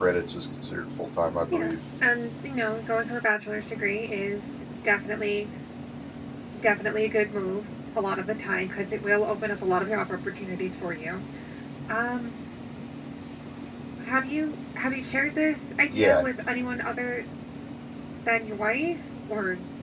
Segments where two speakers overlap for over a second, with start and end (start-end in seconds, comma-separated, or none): none